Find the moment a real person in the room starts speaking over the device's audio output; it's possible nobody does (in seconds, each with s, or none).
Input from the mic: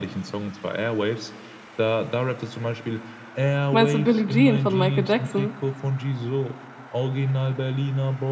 3.7 s